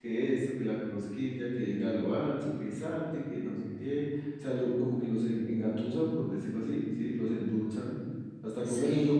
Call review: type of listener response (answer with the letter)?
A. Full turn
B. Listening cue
B